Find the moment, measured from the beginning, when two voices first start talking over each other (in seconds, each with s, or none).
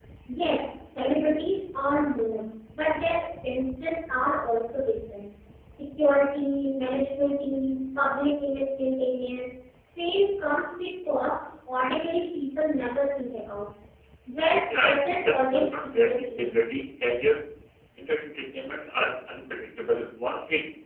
14.7 s